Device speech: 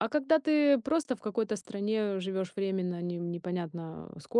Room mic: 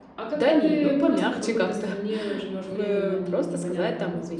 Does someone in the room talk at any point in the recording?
Yes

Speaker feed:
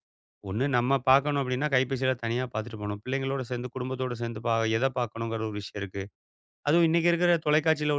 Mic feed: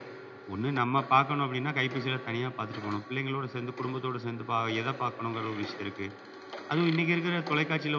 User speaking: No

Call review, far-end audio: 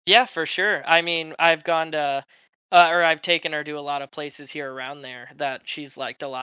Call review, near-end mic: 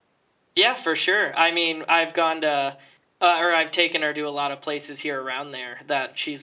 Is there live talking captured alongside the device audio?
No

